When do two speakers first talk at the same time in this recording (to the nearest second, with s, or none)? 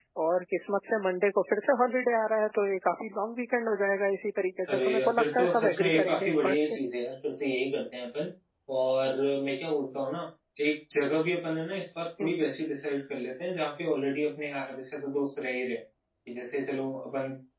5 s